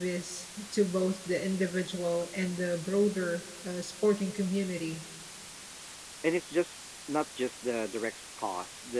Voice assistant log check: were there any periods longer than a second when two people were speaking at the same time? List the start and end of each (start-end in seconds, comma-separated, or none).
none